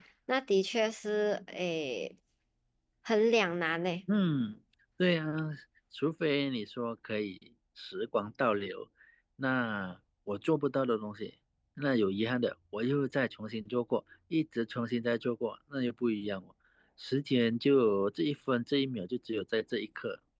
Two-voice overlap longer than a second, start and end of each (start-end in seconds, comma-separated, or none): none